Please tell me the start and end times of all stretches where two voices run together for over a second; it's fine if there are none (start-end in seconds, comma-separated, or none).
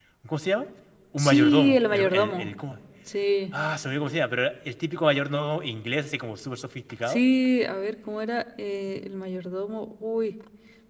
1.2-2.5